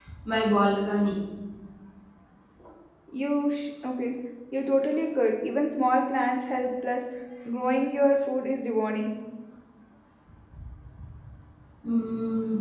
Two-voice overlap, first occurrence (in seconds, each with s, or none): none